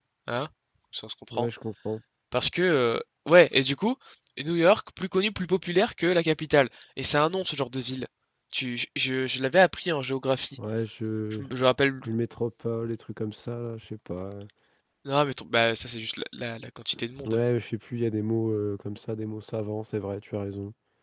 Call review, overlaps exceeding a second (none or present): none